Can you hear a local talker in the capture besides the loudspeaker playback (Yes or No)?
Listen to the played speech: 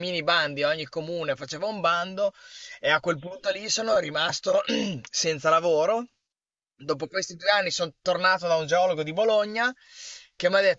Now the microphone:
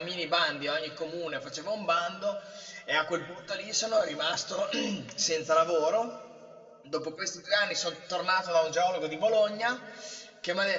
No